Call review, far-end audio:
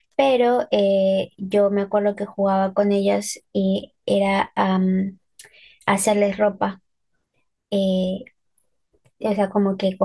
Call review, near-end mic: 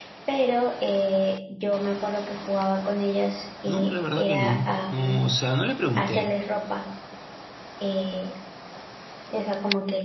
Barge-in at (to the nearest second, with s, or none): 4 s